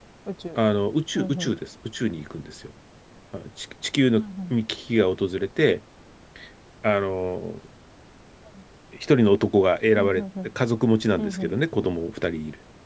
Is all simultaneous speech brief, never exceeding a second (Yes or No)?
Yes